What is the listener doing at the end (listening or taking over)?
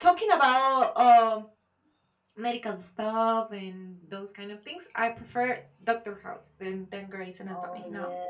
taking over